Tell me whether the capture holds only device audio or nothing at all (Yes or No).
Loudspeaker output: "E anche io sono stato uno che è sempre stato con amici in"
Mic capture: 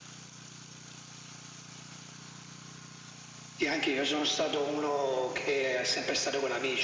Yes